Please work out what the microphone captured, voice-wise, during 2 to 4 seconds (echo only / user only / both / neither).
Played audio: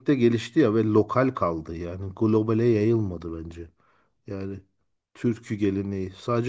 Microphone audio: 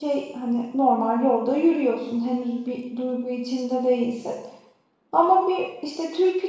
user only